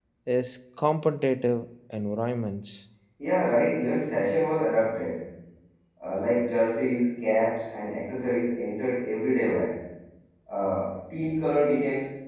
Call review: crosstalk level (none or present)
none